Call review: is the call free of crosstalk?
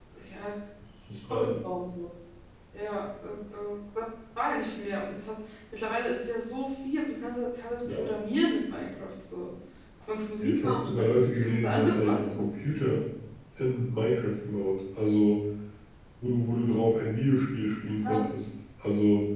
No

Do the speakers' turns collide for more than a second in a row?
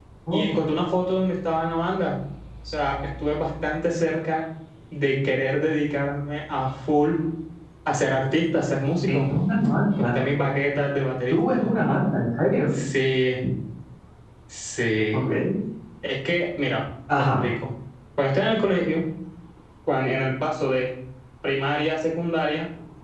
No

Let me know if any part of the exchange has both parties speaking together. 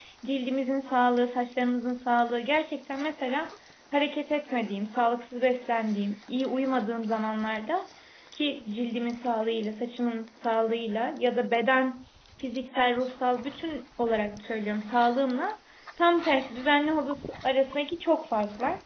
No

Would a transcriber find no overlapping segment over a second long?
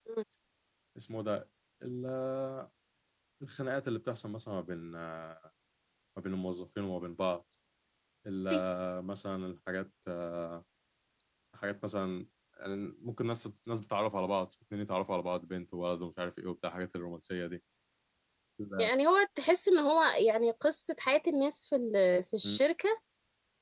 Yes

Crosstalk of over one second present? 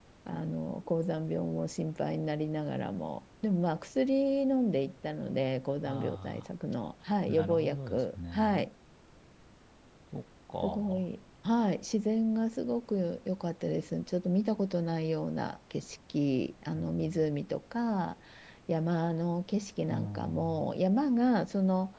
Yes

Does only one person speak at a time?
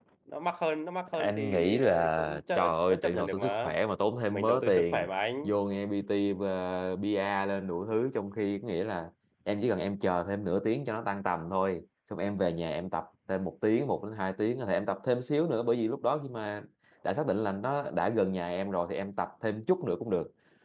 No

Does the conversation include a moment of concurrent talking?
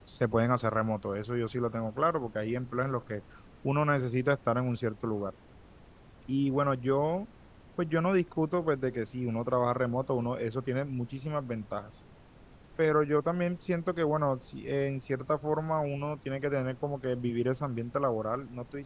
No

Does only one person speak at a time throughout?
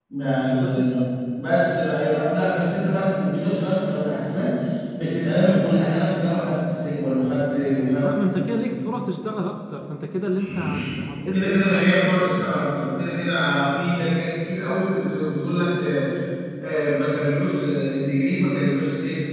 No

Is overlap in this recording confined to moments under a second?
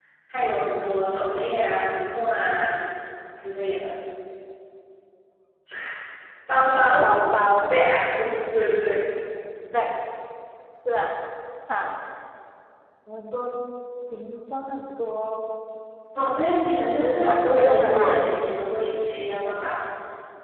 No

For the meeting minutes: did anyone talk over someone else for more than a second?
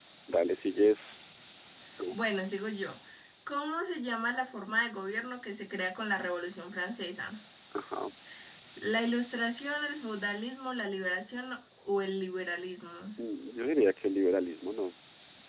No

